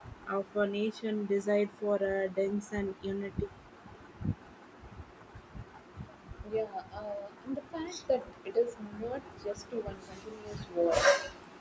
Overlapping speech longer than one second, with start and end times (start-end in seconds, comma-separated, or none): none